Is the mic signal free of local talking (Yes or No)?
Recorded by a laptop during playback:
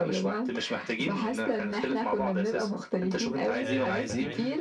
No